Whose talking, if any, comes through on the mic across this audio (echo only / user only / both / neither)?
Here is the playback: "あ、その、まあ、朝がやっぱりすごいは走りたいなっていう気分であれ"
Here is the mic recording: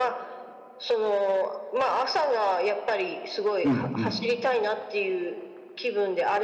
both